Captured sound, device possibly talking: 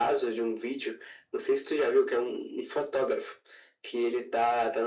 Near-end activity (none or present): none